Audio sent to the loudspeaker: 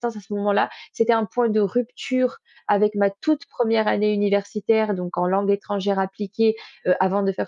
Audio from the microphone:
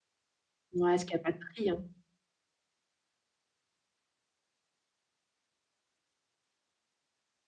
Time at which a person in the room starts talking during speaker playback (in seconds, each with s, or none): 0.7 s